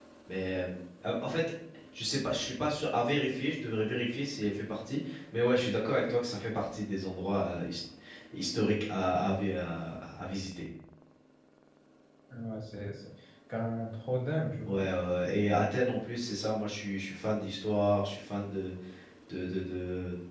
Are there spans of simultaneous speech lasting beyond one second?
No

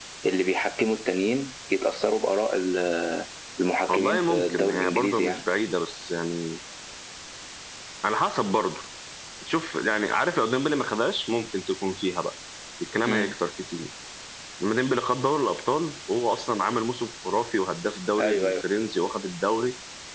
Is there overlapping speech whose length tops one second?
Yes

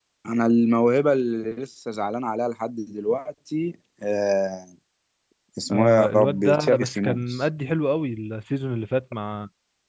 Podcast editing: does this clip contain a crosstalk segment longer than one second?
Yes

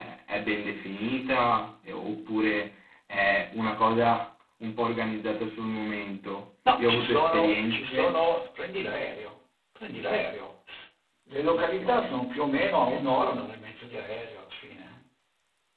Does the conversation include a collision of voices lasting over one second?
Yes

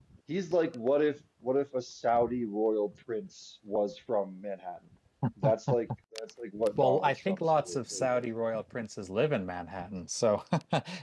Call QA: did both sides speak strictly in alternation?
No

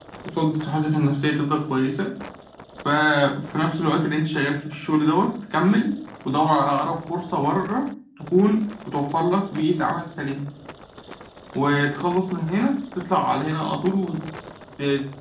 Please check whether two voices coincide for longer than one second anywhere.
No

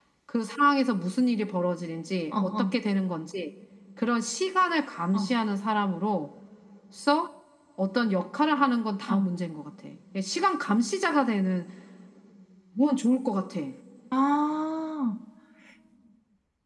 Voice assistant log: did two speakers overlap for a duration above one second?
No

